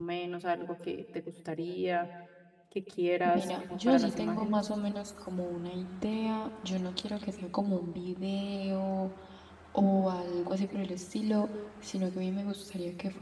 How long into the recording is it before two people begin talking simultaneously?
3.3 s

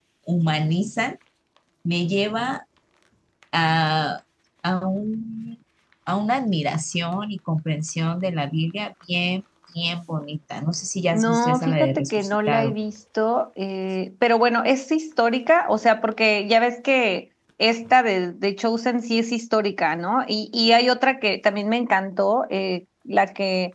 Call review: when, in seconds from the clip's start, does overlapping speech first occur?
11.1 s

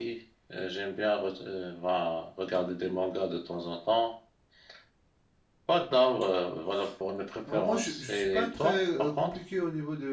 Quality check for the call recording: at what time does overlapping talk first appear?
7.5 s

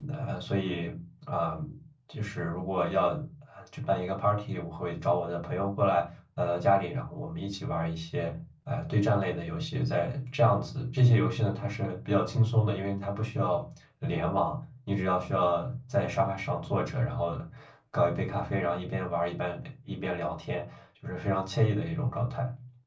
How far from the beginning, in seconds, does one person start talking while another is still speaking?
none

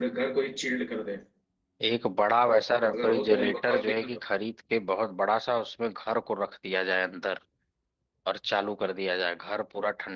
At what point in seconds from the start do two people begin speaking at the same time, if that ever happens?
2.9 s

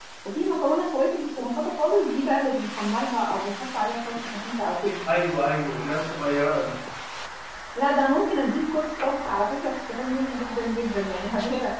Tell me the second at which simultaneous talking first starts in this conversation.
none

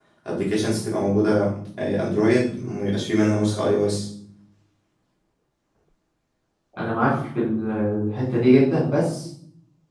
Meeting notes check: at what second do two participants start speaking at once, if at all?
none

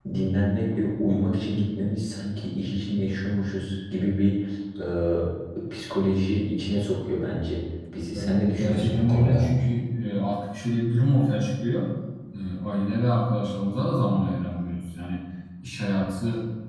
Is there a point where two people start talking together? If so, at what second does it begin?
8.1 s

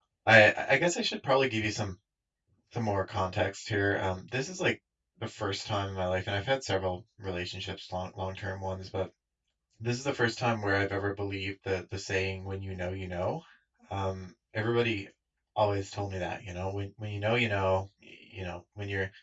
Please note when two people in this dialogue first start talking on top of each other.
none

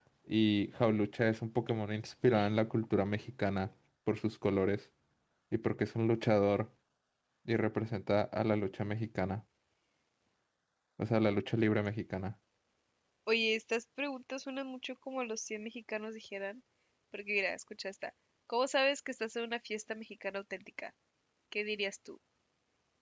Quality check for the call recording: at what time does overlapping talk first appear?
none

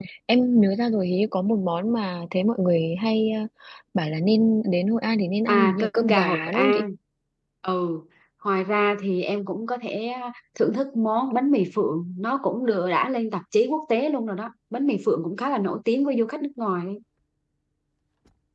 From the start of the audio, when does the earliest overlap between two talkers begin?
5.5 s

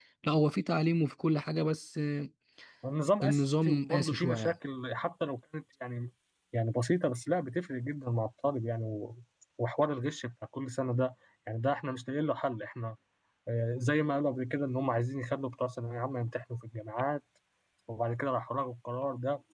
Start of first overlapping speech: 3.2 s

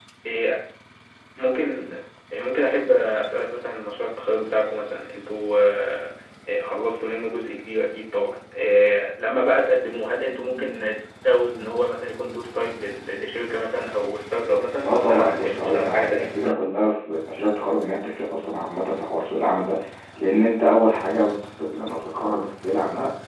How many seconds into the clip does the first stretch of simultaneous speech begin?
14.8 s

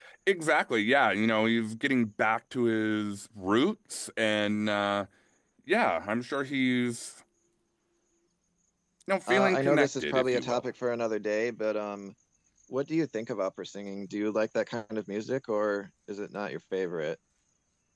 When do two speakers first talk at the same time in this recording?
9.3 s

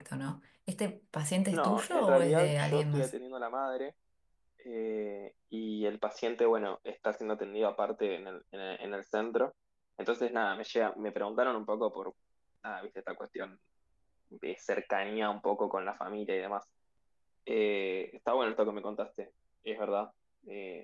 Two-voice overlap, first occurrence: 1.5 s

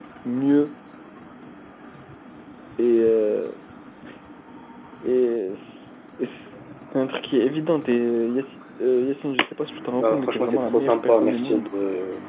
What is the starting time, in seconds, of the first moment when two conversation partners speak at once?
10.0 s

